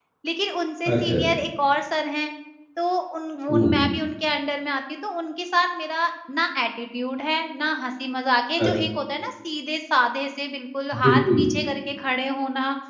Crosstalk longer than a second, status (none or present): none